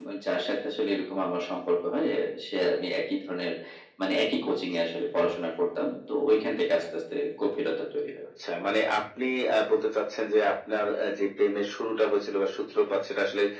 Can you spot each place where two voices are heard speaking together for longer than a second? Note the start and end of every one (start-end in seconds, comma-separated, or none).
none